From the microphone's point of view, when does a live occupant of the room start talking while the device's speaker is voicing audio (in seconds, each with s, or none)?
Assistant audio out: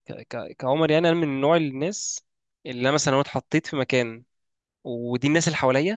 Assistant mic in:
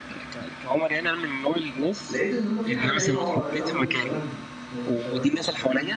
2.1 s